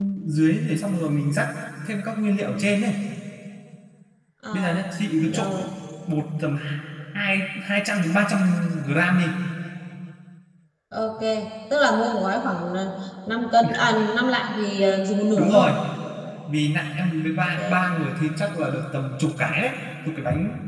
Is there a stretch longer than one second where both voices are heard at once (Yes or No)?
No